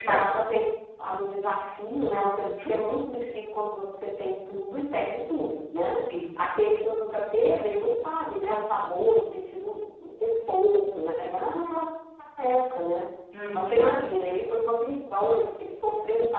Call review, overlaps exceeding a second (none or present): none